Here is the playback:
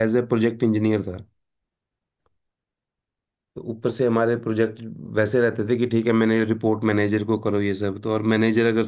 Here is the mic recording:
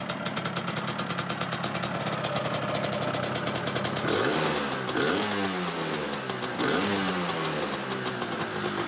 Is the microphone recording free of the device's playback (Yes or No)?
Yes